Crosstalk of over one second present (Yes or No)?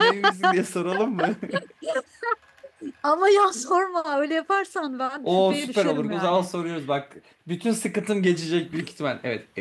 Yes